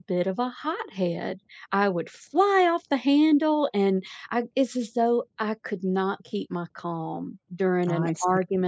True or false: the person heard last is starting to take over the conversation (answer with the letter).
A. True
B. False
B